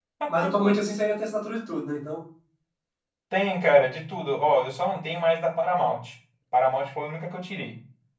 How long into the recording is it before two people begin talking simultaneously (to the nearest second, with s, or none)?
none